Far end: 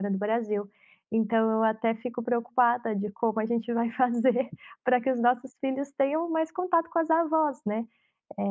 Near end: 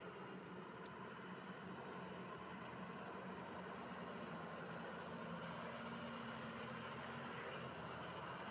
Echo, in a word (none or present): none